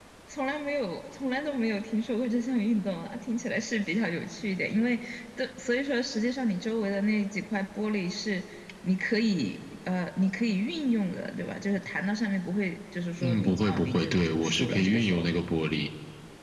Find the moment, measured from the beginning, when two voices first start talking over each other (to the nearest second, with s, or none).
13 s